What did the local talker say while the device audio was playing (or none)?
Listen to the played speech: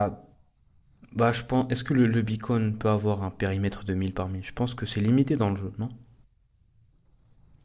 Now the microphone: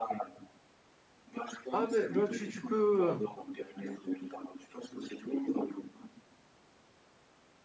Ah mais bah tu, tu peux euh,